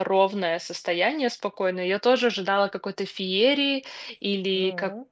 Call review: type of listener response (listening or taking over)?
listening